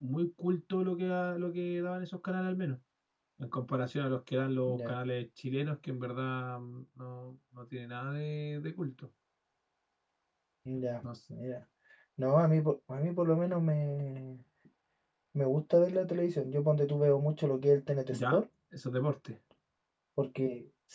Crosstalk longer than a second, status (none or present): none